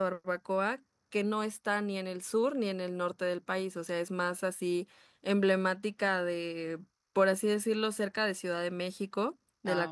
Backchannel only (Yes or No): Yes